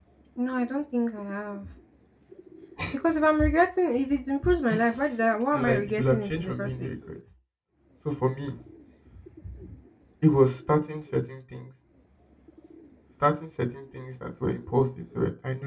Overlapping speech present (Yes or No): Yes